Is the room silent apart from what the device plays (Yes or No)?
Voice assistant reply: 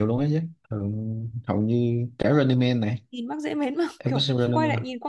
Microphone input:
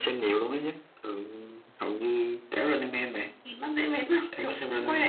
Yes